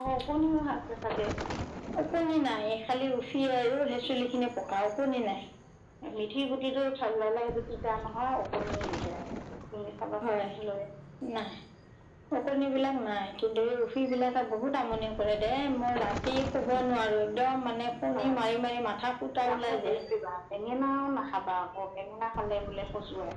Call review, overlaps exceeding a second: none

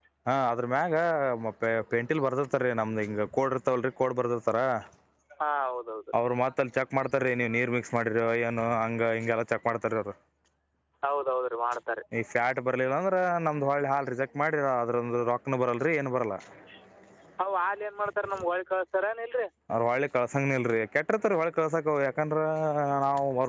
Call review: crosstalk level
none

